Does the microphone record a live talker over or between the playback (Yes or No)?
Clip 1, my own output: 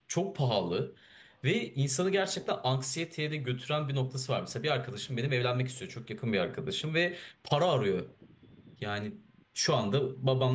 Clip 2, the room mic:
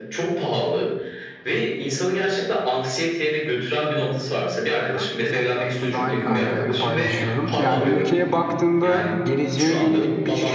Yes